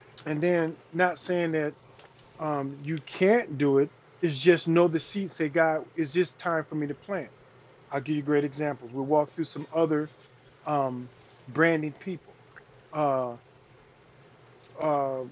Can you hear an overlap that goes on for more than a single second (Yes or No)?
No